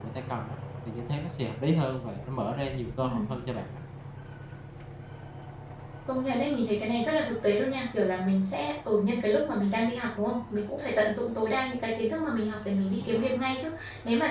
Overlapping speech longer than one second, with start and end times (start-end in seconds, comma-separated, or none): none